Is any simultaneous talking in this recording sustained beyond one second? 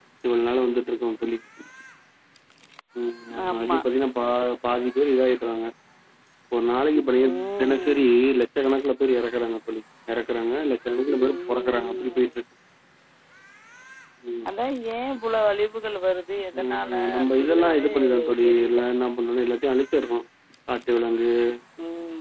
Yes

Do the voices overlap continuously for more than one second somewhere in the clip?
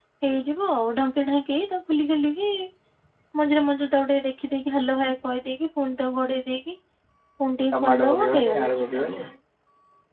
Yes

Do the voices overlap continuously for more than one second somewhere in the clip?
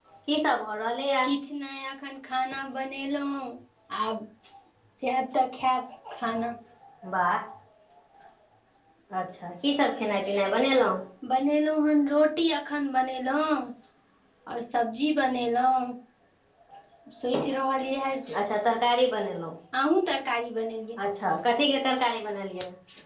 No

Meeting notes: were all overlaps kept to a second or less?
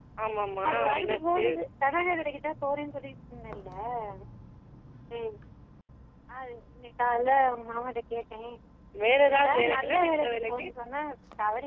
No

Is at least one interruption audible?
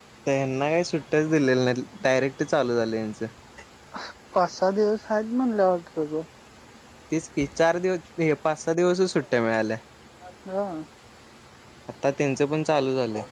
No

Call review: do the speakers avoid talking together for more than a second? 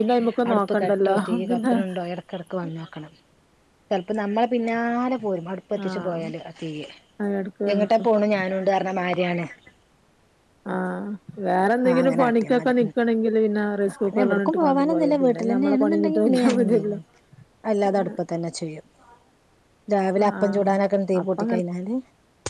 No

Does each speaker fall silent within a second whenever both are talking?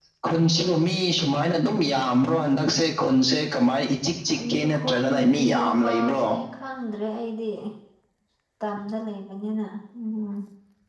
No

